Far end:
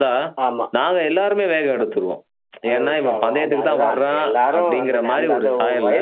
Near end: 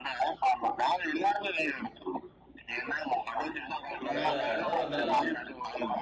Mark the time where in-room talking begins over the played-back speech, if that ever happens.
4.0 s

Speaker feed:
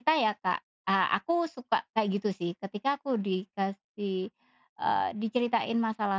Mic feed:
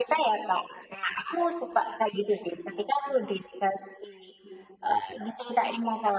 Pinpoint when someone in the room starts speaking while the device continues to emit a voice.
none

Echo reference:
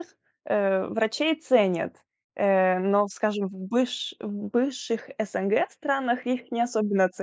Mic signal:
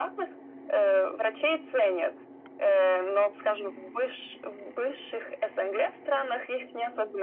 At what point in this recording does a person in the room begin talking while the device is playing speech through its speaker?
none

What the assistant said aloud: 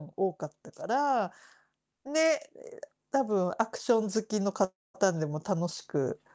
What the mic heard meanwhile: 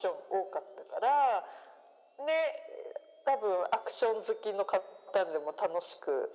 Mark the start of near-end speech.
none

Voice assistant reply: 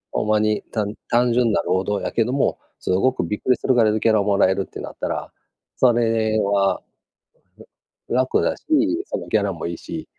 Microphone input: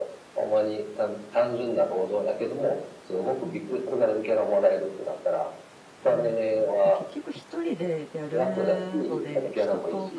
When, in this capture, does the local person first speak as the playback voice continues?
6.1 s

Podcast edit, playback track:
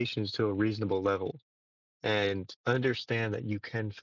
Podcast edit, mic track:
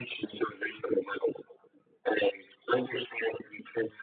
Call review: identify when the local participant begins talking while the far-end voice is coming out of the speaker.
none

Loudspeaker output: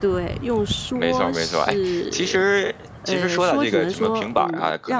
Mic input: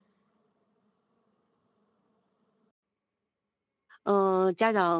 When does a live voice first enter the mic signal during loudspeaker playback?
4.0 s

